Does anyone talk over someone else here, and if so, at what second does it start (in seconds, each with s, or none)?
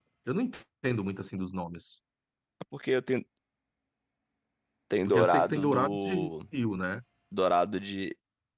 5.0 s